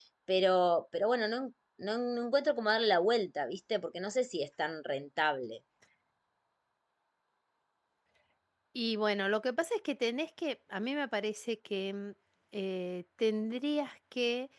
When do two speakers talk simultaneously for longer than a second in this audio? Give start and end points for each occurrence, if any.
none

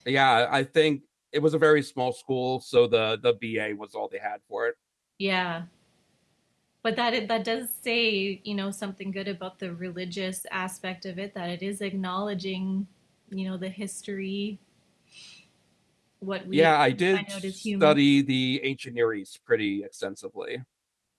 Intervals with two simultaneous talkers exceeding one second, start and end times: 16.5-18.0

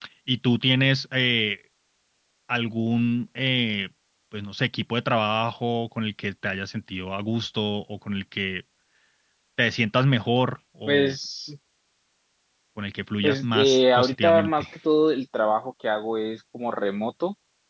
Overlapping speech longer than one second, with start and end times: 13.2-14.7

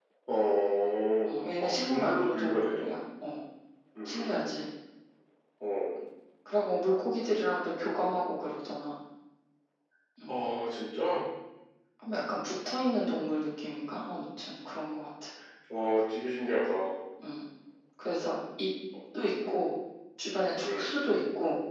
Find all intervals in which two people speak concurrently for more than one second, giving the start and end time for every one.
1.6-2.8

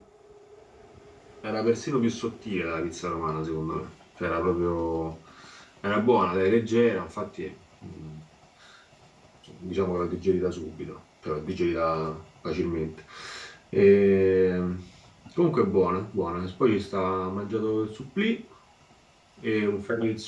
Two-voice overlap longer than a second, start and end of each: none

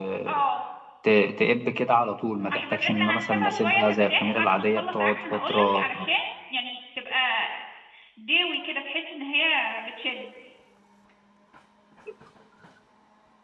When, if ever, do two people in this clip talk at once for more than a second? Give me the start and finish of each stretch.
2.5-5.8

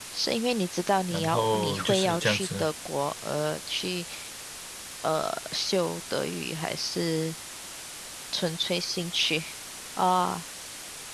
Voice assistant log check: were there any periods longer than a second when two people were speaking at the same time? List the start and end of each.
1.1-2.7

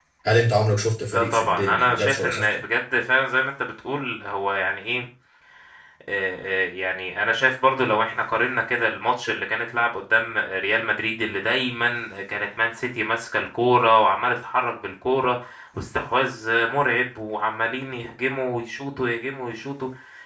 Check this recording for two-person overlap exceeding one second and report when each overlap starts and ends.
1.1-2.4

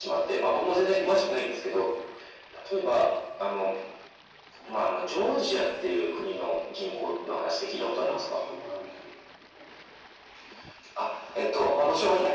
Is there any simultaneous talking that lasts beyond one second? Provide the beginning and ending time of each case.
none

